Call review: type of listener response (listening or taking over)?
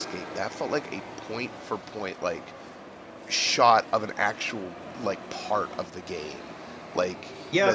taking over